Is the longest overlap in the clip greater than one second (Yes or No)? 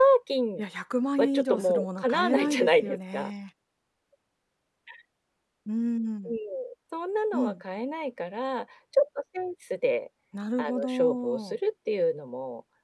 Yes